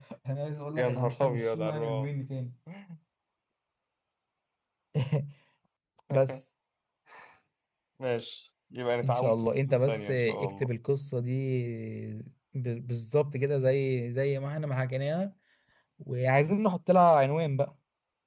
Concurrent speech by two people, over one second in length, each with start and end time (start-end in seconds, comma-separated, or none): 0.8-2.1, 9.0-10.7